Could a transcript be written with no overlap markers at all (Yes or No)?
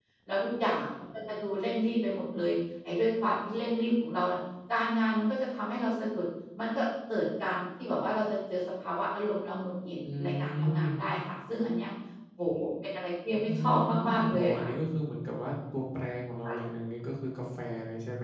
No